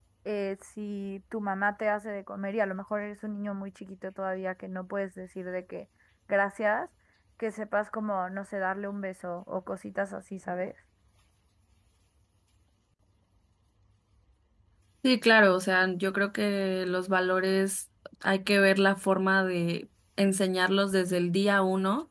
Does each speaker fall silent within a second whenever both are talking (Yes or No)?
Yes